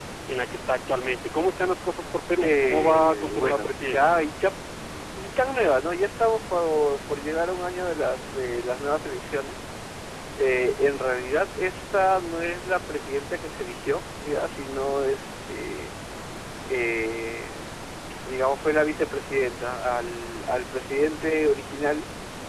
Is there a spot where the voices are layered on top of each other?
Yes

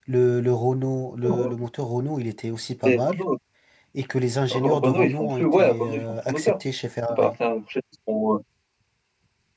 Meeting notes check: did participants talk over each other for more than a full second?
Yes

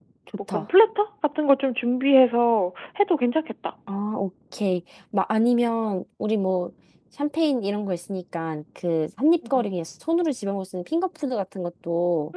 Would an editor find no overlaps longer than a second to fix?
Yes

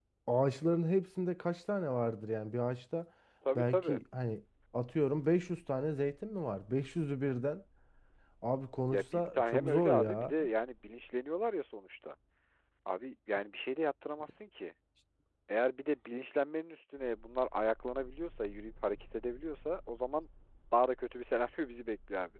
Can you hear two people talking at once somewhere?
Yes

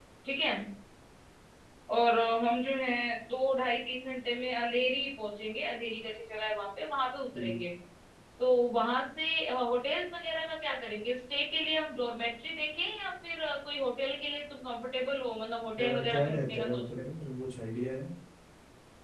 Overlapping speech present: Yes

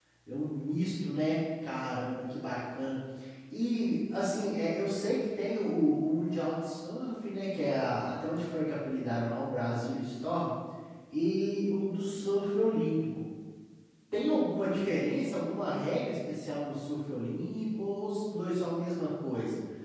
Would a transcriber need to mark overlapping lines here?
No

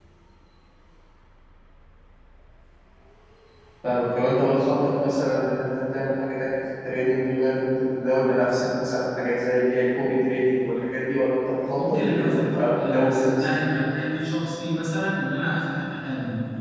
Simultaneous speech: Yes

